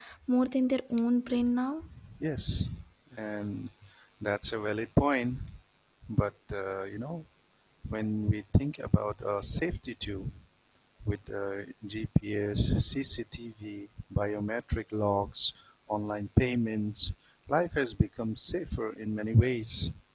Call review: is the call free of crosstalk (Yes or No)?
Yes